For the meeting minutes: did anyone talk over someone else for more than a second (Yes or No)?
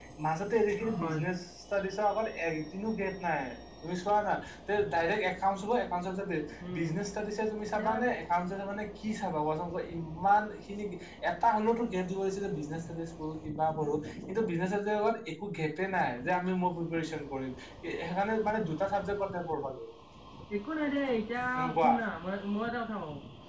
No